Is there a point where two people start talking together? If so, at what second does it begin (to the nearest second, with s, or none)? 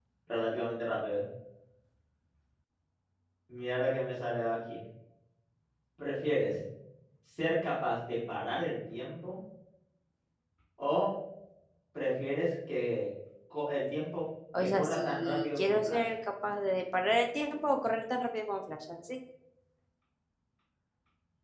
15 s